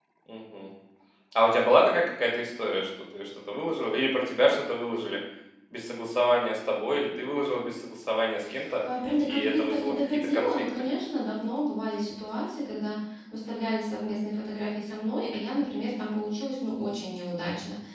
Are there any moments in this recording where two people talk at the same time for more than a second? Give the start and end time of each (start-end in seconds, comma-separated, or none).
9.2-10.7